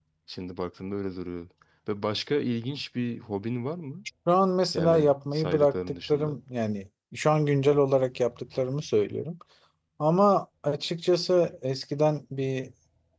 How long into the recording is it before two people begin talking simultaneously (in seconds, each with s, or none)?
4.7 s